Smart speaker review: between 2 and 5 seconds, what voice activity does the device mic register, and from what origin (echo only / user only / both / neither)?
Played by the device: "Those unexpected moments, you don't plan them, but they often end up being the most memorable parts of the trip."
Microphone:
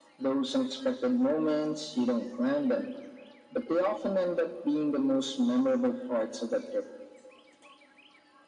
echo only